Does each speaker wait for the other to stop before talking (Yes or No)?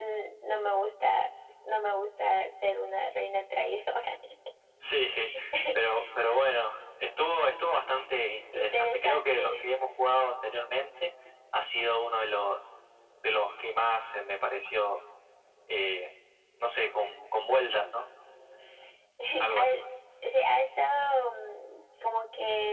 No